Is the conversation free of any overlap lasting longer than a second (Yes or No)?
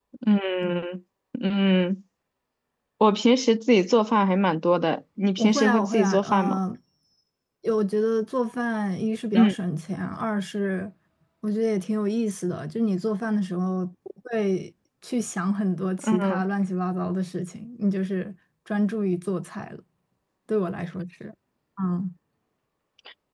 No